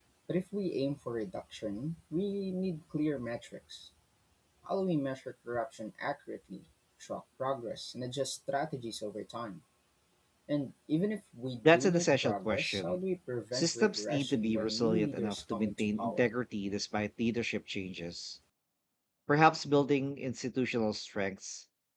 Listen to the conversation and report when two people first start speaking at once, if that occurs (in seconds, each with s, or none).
11.7 s